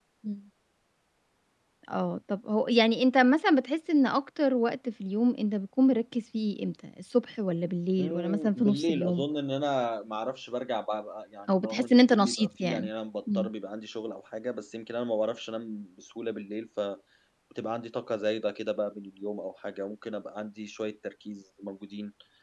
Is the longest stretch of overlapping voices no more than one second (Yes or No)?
No